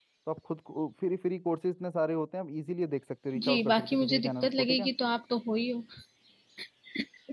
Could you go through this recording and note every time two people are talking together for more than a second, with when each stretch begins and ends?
3.5-4.9

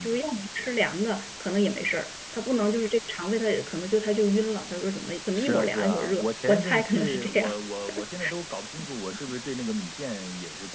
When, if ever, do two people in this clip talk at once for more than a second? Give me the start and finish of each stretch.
5.4-7.6

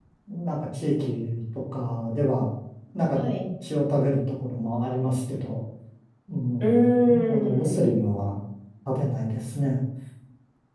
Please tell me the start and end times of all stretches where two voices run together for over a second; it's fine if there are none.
6.6-7.9

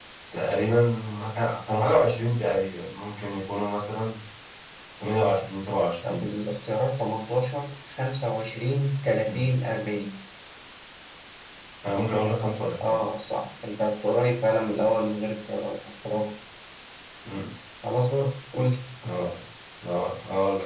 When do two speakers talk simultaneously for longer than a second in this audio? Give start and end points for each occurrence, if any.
none

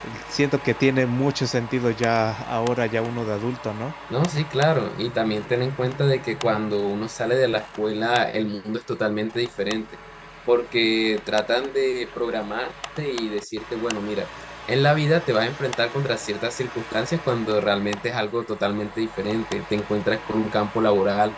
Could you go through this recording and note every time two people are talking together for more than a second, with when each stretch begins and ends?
none

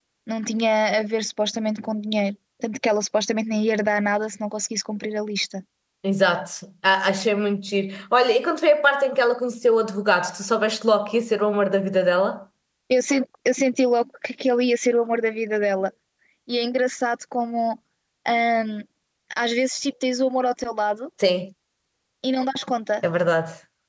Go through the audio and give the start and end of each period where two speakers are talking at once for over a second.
none

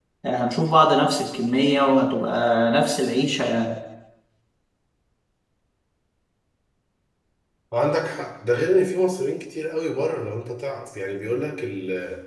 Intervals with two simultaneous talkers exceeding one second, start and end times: none

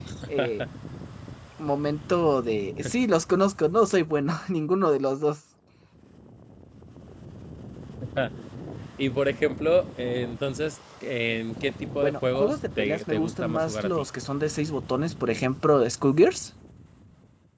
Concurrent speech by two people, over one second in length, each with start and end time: 12.0-14.1

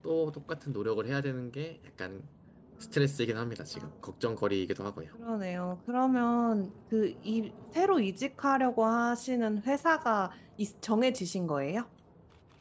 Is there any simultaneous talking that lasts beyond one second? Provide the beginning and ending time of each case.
none

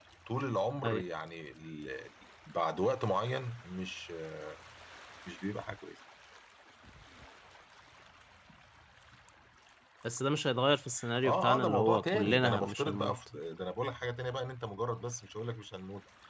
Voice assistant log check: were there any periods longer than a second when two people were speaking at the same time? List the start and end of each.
11.2-13.2

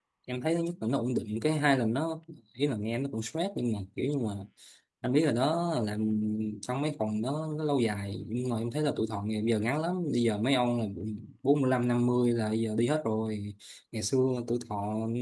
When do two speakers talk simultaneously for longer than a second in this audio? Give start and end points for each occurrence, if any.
none

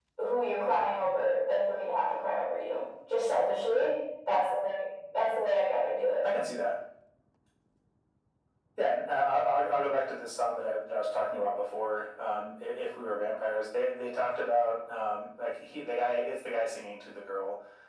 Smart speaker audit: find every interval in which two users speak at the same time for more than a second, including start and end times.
none

